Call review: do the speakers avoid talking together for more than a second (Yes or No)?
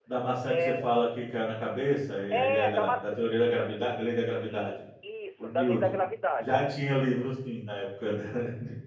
No